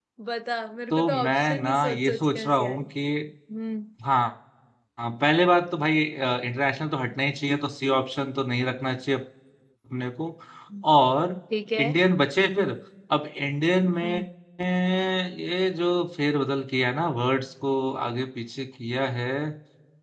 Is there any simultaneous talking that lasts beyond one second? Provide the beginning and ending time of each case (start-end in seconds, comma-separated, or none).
0.9-2.8